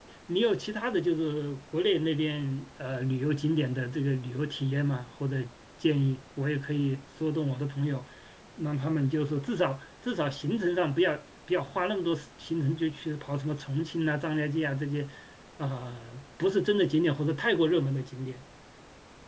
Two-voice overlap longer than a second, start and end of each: none

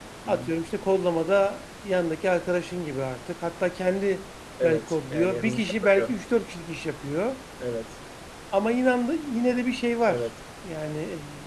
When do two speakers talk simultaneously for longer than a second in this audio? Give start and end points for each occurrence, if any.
4.6-6.2

